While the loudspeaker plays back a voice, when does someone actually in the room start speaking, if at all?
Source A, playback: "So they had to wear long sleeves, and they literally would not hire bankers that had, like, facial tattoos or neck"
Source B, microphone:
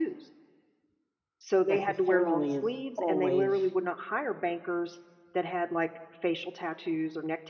1.7 s

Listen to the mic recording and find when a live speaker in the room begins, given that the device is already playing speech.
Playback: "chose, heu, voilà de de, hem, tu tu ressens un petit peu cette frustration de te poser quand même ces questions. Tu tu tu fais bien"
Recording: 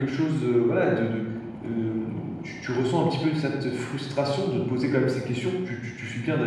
none

